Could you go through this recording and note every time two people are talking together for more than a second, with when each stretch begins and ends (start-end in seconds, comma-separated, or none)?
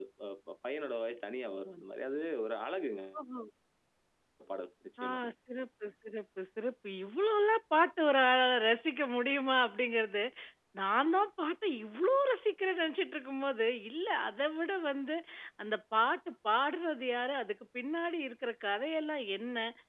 none